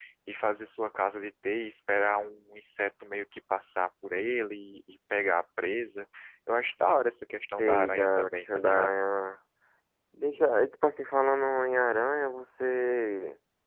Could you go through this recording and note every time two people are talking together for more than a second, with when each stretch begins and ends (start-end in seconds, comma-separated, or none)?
7.6-8.9